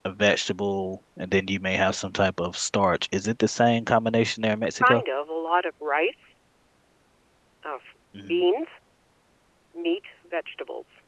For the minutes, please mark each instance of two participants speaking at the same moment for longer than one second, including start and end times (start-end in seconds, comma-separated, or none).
none